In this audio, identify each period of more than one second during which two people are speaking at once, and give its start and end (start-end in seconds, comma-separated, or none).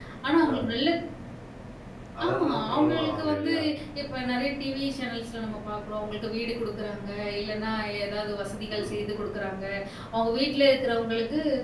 2.2-3.5